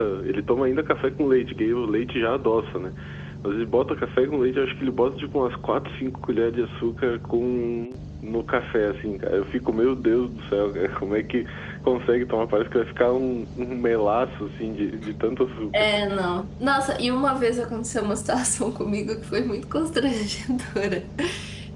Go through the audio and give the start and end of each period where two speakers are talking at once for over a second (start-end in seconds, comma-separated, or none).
none